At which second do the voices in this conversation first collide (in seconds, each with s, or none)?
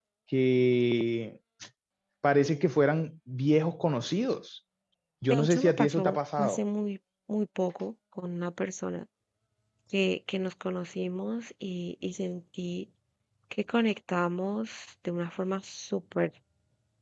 5.3 s